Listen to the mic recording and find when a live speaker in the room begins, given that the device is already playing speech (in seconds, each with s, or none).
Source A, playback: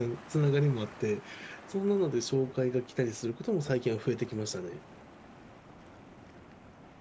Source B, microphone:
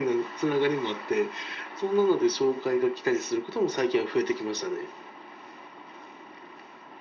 none